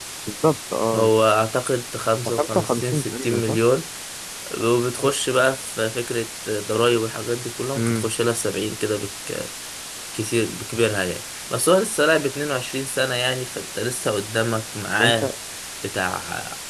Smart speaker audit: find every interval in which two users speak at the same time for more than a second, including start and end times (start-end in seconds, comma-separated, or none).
2.3-3.6